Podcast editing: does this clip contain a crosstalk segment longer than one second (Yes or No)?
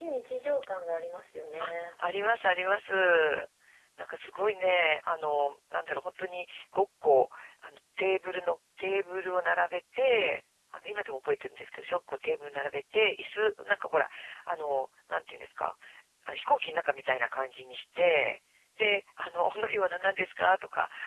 No